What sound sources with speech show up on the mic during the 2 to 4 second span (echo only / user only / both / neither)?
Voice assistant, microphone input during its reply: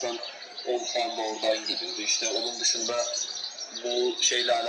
echo only